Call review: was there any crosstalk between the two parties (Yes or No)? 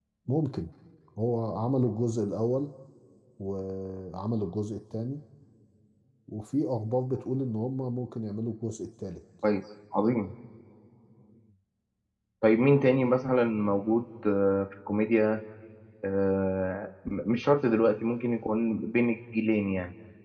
No